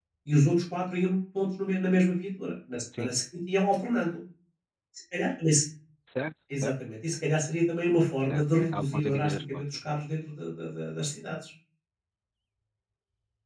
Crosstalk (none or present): present